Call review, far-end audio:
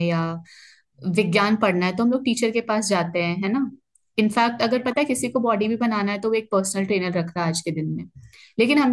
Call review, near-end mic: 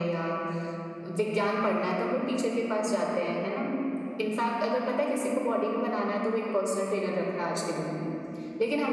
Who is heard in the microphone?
echo only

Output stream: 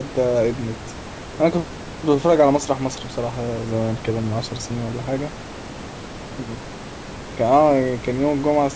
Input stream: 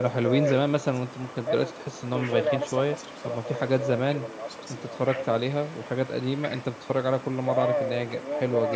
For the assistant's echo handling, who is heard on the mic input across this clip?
both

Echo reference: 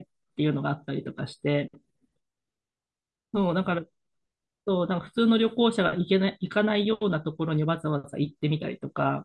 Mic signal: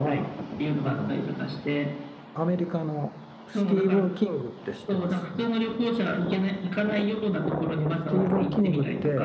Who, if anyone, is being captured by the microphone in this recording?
both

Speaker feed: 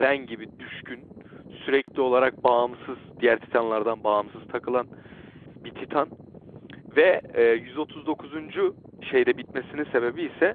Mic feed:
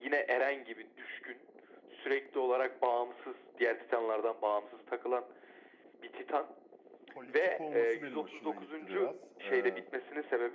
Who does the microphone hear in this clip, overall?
both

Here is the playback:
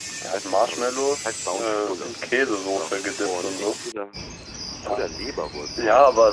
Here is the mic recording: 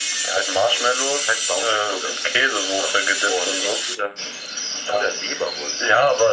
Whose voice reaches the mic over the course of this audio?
echo only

